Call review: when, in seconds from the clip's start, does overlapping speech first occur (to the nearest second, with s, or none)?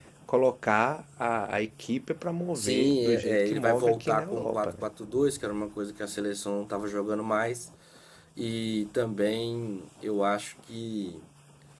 3 s